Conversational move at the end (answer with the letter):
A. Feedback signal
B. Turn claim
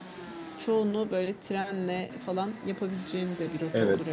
B